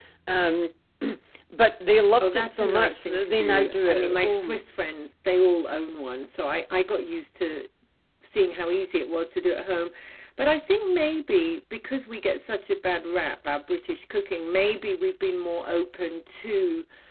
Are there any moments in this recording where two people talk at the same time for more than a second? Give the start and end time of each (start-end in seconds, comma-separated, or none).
2.2-4.6